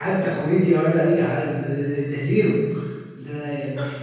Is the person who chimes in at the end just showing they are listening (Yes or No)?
Yes